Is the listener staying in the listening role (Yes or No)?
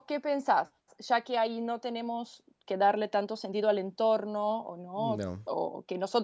Yes